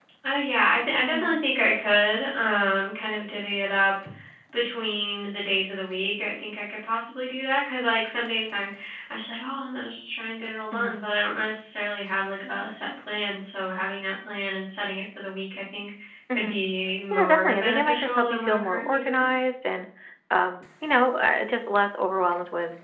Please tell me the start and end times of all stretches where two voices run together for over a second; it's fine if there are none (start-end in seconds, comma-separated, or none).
17.1-19.3